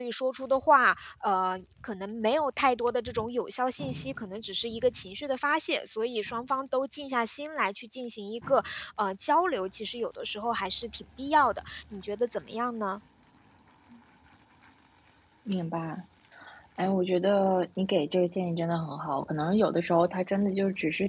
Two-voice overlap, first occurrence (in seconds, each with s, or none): none